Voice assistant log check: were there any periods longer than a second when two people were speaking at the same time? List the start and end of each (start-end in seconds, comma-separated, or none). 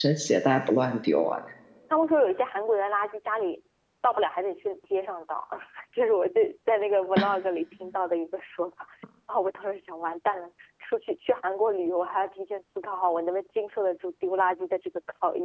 none